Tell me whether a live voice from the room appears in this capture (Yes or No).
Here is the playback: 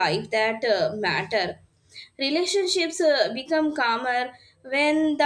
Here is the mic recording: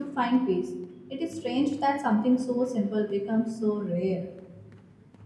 Yes